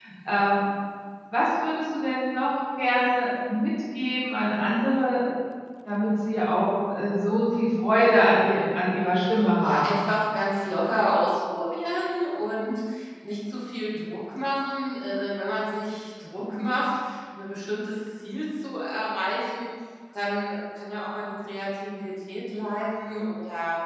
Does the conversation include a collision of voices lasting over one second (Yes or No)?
No